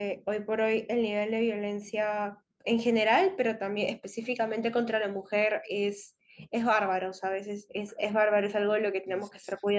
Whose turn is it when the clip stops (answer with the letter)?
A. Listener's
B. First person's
B